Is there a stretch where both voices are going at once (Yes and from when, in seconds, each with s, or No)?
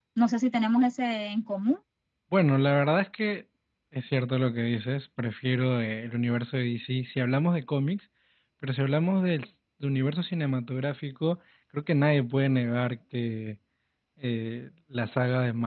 No